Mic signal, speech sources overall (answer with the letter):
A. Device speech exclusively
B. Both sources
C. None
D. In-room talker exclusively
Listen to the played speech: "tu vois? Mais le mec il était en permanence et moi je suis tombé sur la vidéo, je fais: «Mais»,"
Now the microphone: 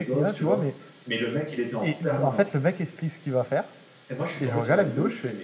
B